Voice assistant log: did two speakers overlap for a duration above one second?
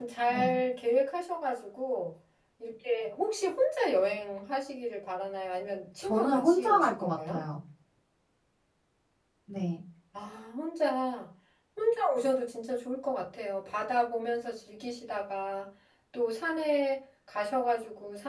Yes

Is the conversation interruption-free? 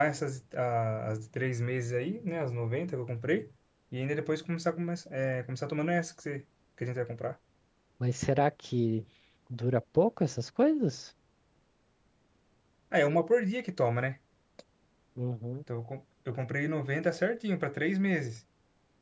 Yes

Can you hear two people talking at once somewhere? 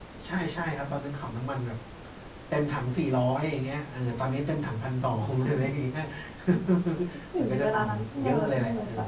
Yes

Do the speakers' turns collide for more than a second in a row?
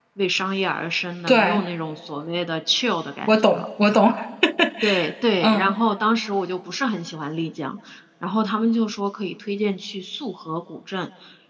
No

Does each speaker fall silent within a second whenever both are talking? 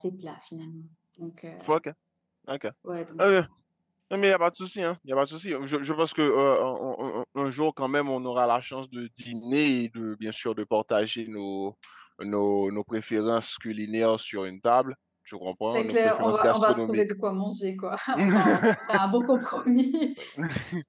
No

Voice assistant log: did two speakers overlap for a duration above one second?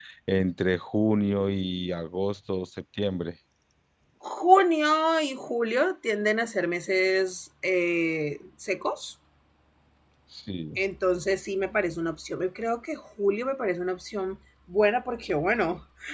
No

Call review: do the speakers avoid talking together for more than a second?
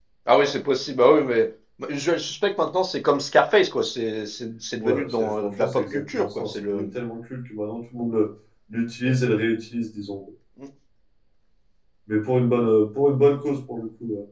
No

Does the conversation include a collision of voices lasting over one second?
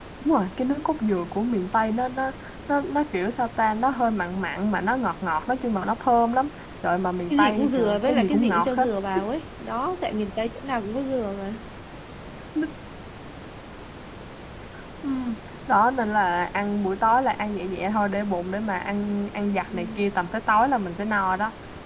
Yes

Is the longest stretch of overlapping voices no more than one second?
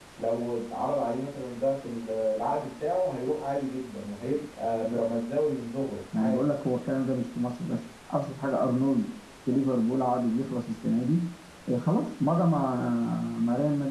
Yes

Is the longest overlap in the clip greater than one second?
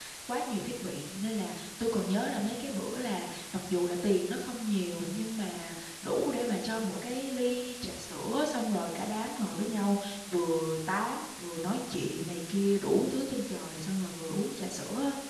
No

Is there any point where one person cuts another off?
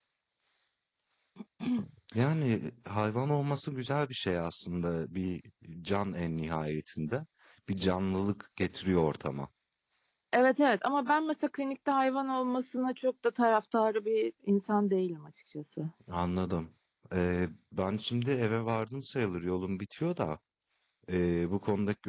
No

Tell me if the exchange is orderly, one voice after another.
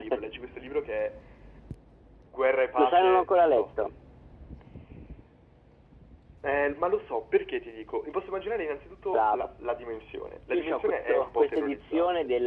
No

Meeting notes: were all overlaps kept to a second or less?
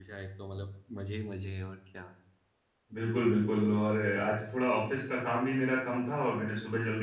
Yes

